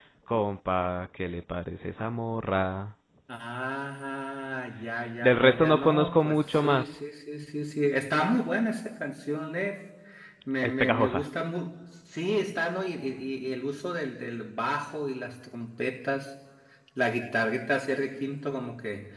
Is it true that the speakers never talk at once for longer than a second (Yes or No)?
No